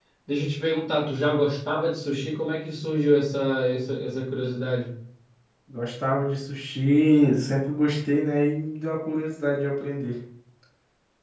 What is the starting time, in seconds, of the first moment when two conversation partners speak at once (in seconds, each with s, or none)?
none